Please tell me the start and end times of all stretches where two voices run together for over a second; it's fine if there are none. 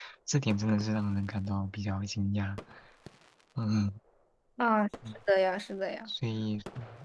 none

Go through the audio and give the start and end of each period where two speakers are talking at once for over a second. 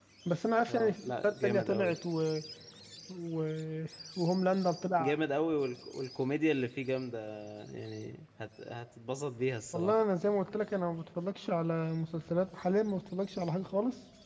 0.7-1.9

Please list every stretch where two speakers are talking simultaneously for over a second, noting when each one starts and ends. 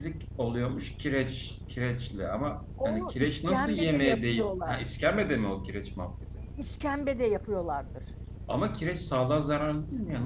2.8-4.8

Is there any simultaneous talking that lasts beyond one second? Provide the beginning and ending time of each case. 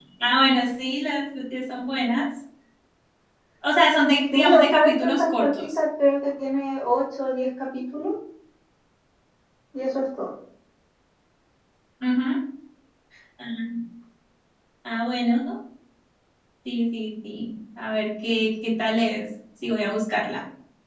4.3-5.8

